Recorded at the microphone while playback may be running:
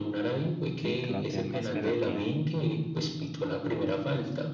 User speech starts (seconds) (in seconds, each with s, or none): 0.8 s